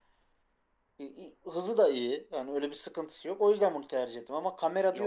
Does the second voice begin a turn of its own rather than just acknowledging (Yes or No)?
Yes